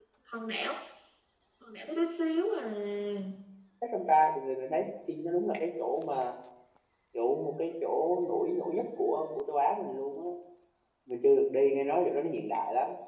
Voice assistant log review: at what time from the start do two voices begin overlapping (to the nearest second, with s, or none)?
none